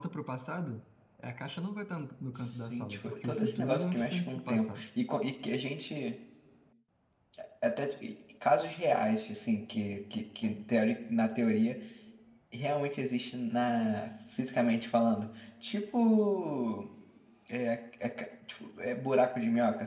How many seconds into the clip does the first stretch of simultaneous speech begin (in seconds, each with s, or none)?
2.4 s